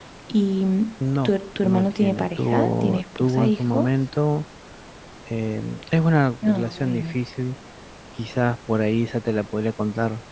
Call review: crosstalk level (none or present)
present